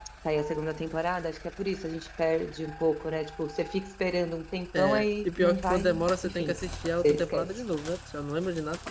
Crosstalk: present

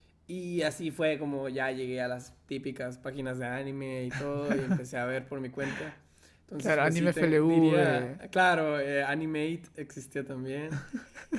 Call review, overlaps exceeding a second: present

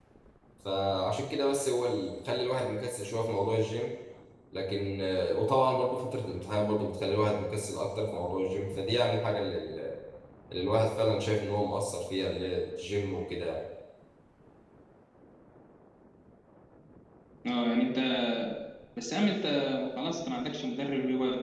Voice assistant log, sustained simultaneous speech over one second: none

